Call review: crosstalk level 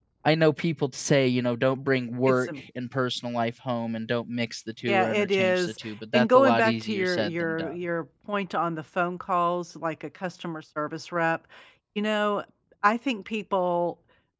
present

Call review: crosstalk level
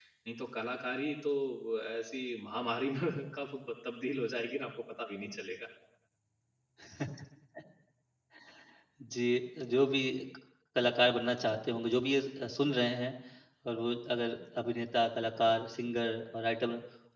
none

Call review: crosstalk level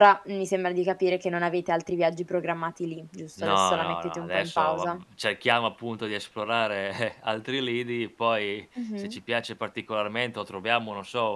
present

